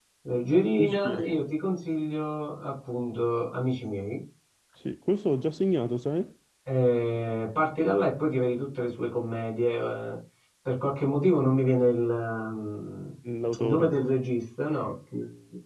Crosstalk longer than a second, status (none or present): none